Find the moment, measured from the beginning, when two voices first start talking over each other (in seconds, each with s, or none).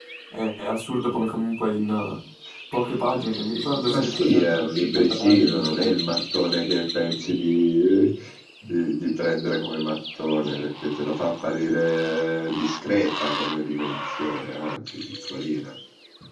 3.9 s